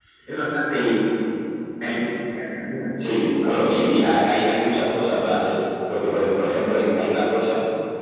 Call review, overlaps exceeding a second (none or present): none